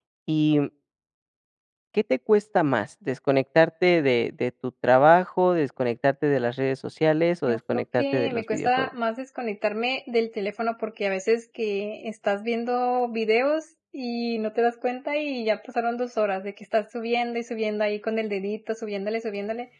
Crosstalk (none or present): present